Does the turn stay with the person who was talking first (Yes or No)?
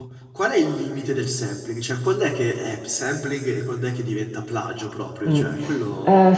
No